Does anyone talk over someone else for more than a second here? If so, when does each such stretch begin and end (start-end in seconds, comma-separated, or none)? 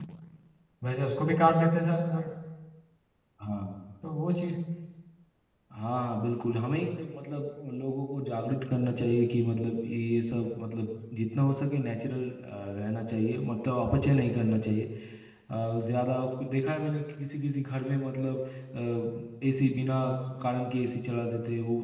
none